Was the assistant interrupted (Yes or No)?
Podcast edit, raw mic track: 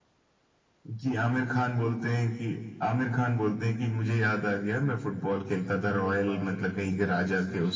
Yes